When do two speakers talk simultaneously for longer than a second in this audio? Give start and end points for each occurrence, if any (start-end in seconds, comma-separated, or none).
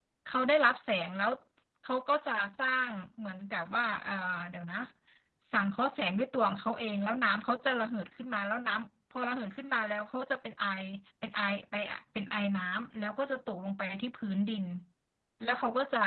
none